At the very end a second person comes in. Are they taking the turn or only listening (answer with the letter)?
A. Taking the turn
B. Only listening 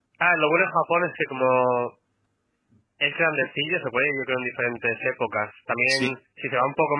B